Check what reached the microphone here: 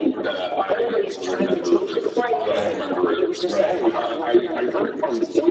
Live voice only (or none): right, right,